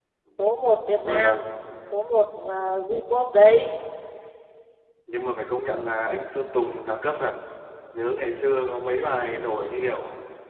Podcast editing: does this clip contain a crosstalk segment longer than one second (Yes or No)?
No